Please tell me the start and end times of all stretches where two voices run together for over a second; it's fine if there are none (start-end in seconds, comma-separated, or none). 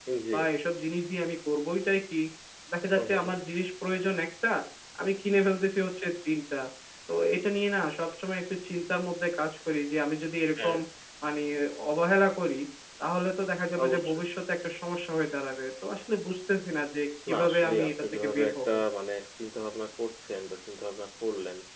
17.3-18.7